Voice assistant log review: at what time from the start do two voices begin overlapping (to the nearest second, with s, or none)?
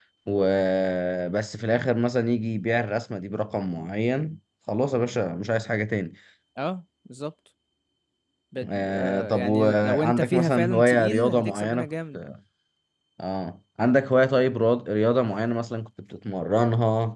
9 s